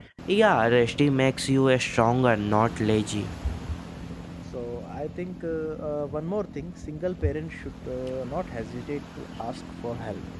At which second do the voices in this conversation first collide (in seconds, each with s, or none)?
none